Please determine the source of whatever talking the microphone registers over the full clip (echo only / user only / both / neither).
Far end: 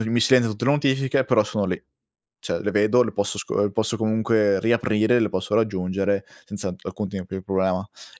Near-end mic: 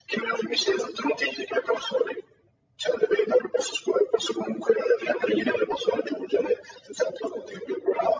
echo only